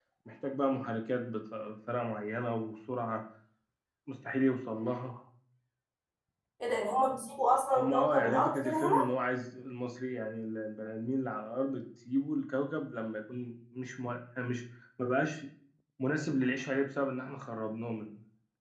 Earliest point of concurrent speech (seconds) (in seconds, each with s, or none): 7.8 s